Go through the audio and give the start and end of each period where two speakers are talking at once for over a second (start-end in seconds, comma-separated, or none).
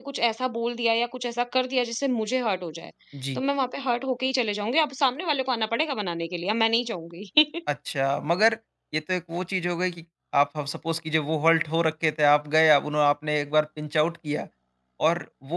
none